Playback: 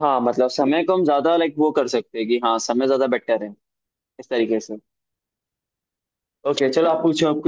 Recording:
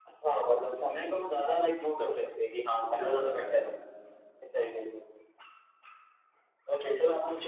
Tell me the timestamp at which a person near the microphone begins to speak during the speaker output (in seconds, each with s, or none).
2.8 s